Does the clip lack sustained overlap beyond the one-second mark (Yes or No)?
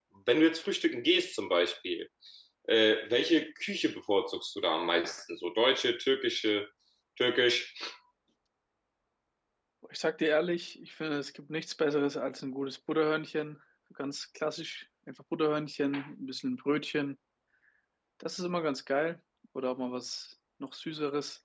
Yes